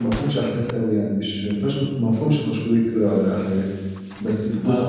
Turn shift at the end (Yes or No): No